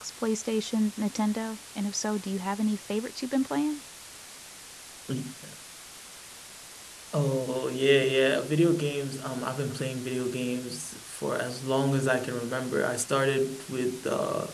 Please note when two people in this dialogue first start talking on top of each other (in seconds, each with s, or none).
none